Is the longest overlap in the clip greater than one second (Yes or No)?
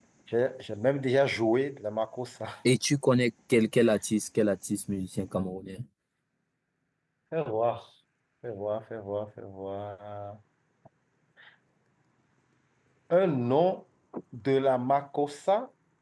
No